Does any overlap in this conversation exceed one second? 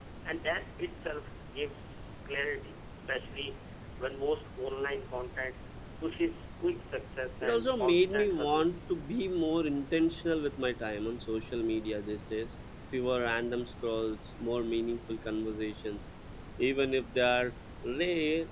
Yes, from 7.4 s

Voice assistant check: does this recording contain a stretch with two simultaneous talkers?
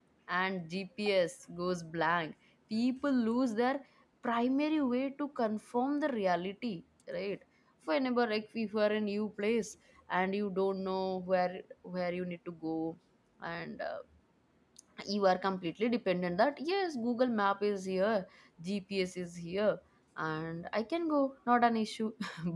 No

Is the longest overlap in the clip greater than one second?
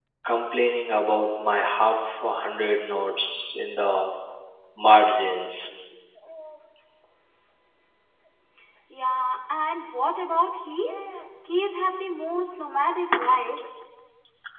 No

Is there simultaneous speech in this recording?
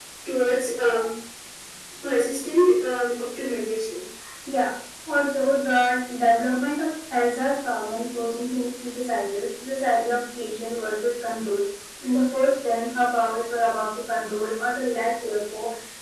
No

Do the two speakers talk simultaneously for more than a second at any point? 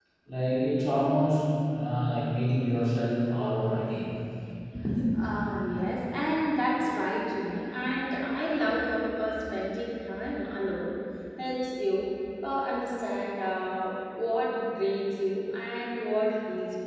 No

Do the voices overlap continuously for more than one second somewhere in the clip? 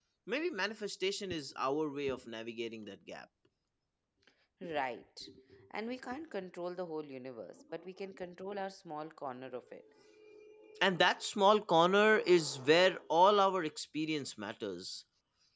No

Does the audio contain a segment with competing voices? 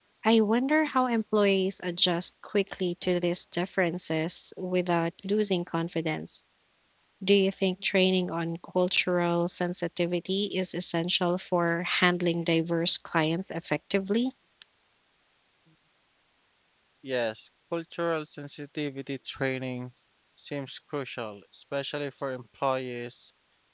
No

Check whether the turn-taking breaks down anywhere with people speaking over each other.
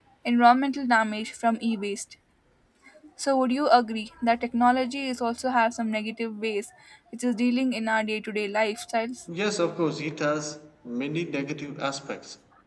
No

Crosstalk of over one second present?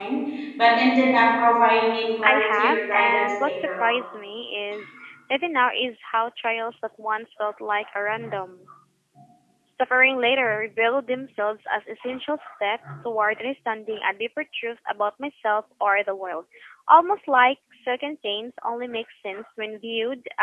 Yes, from 2.2 s

